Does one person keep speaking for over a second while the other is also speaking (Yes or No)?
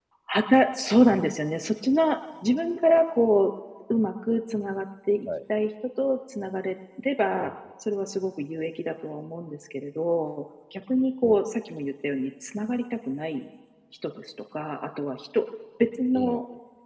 No